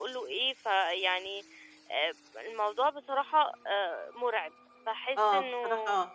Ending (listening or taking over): taking over